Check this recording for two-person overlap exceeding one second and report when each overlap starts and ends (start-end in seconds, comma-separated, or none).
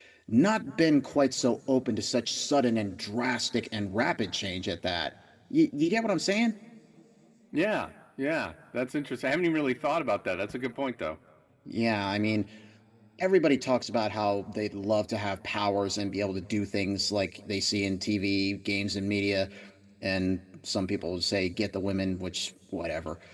none